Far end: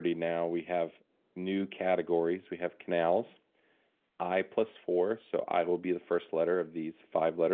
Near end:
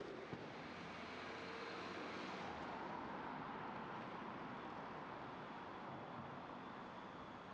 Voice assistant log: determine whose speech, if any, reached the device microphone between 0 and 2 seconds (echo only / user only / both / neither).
neither